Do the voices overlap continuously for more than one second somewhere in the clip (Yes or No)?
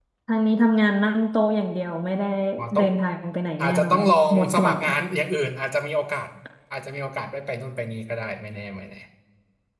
Yes